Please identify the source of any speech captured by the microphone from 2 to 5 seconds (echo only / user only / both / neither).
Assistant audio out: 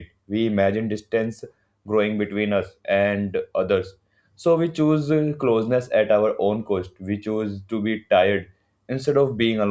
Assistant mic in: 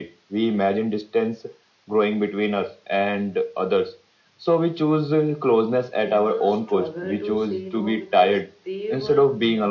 echo only